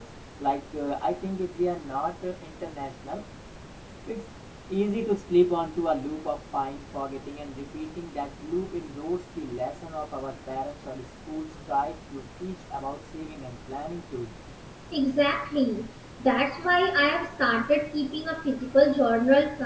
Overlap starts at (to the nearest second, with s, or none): none